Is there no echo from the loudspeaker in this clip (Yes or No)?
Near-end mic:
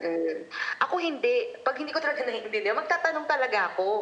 No